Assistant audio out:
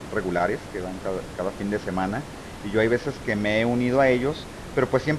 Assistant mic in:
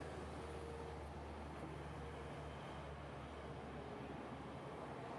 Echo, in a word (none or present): none